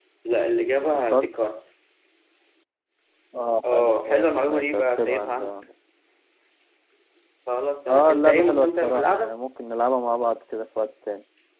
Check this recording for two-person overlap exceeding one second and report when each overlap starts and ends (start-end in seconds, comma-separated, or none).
3.7-5.5, 7.9-9.4